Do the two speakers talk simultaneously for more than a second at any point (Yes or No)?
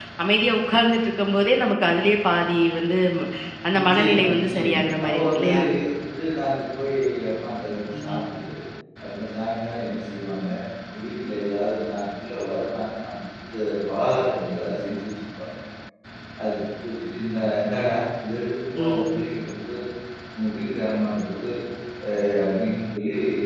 Yes